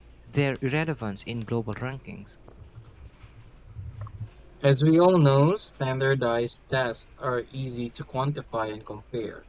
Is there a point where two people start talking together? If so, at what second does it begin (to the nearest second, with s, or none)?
none